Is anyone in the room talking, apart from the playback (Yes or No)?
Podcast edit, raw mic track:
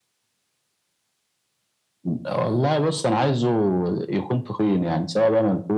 No